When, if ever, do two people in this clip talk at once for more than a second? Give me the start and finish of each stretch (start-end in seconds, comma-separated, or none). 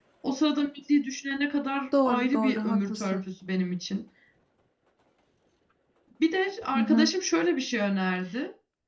2.0-3.2